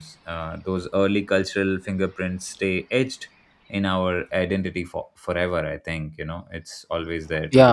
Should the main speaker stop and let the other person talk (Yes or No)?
Yes